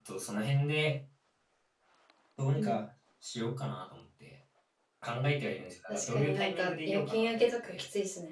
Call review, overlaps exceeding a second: present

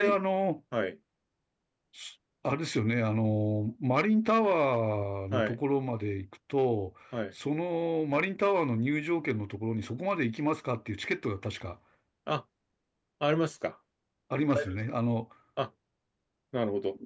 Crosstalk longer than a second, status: none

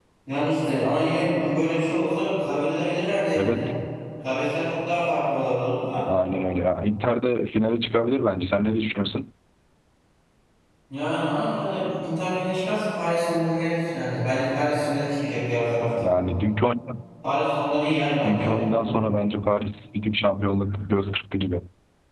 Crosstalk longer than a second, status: none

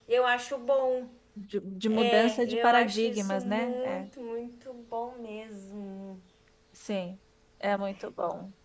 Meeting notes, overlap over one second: present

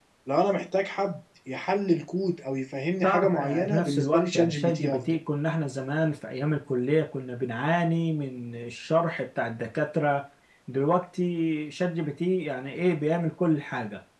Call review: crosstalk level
present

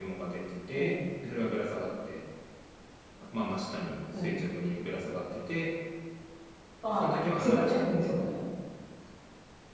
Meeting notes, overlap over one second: present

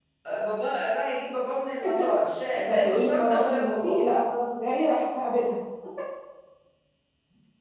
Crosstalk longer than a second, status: present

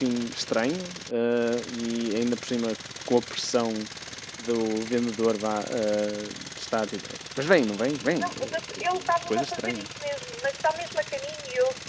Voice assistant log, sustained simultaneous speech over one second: present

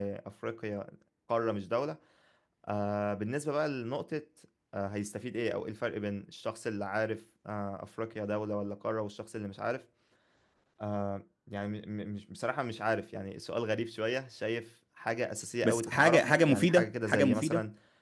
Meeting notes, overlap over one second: present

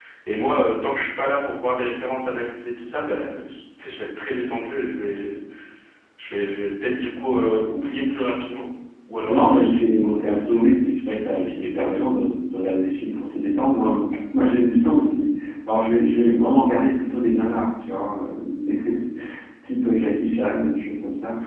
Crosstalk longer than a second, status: present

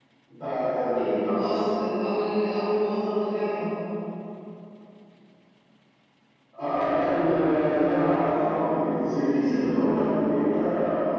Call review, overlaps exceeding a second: none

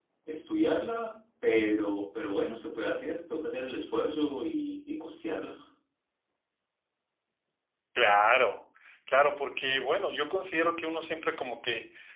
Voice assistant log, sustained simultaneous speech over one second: none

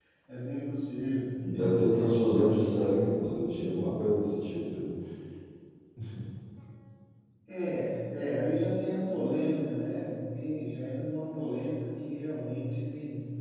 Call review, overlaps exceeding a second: present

